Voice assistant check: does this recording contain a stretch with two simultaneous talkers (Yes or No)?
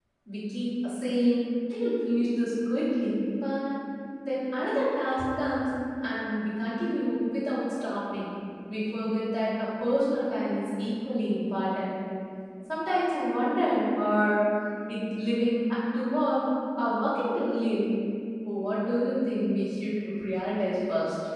No